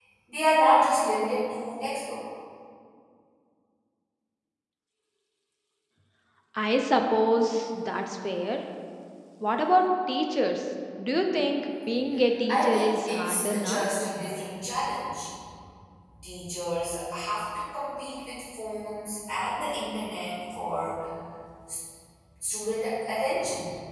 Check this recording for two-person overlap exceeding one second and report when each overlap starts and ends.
12.5-13.9

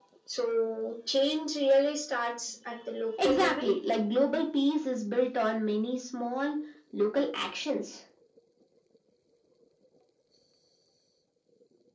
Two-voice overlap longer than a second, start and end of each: none

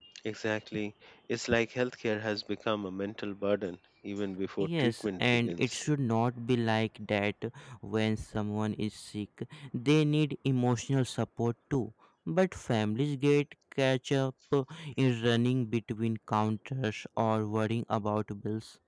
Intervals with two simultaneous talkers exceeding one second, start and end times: 4.6-5.8

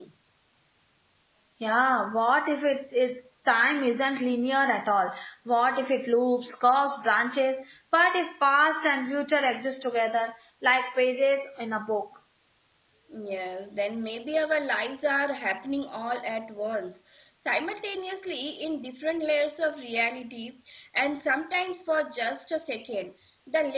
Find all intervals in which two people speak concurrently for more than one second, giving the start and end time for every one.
none

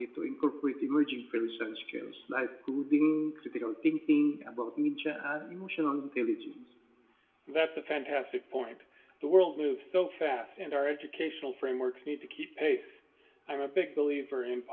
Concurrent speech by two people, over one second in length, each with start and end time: none

